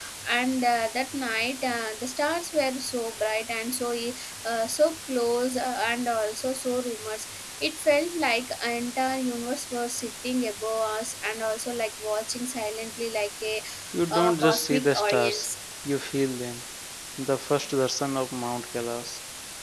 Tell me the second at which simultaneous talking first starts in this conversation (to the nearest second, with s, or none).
14 s